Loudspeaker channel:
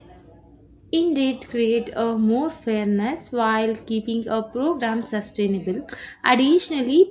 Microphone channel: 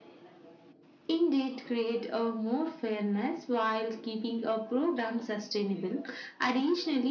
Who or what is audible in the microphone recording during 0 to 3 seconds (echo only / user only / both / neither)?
echo only